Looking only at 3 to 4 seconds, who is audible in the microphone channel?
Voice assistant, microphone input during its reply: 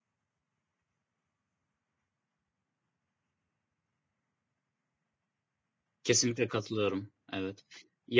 neither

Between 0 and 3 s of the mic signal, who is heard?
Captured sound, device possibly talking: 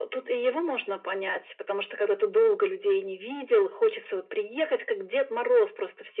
echo only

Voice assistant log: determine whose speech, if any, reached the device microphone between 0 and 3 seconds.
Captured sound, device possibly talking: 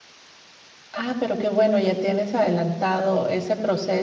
user only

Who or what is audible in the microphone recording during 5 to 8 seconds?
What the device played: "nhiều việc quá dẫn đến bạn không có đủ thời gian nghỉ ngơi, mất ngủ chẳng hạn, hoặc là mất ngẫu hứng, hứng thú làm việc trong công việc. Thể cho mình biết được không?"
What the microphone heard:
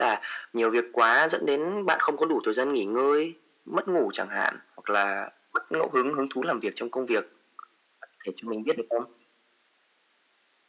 echo only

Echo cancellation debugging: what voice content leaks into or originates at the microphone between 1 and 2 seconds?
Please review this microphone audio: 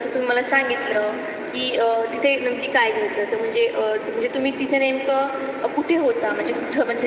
echo only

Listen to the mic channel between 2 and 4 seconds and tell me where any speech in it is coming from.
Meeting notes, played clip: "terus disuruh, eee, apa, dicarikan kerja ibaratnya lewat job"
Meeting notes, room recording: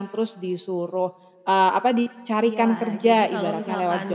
both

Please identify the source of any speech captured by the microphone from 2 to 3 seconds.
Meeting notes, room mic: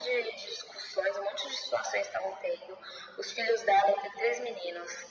echo only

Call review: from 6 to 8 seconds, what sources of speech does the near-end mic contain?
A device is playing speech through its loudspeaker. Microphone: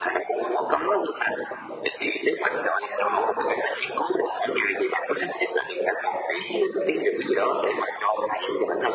echo only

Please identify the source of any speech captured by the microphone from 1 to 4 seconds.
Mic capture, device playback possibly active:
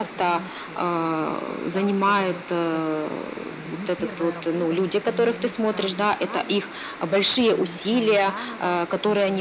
both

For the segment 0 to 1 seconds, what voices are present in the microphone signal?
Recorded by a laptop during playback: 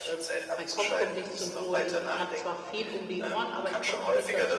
both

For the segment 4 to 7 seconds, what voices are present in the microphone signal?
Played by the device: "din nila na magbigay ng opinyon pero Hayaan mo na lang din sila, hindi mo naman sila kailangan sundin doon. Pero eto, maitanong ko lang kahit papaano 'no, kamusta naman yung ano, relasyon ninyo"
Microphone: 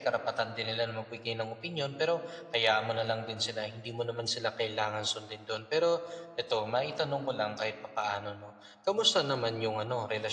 echo only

